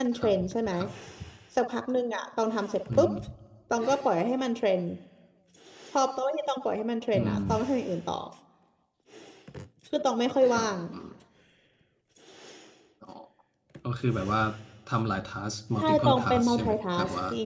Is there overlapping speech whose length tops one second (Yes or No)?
Yes